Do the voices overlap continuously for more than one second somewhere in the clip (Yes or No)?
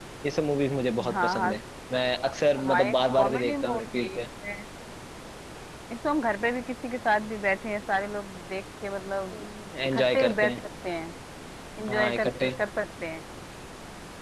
Yes